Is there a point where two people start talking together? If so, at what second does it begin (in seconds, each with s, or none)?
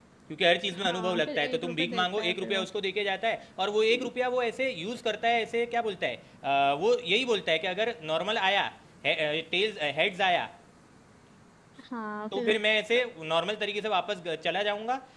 0.7 s